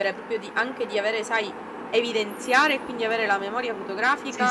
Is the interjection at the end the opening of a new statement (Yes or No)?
Yes